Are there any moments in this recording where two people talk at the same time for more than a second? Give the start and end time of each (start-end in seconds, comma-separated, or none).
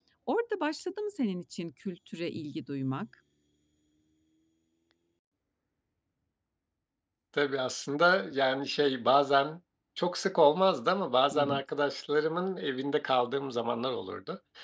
none